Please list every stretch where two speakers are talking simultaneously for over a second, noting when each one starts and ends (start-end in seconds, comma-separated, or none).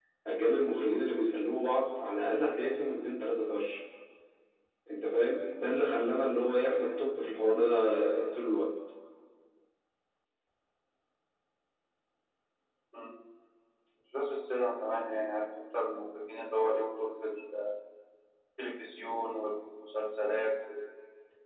none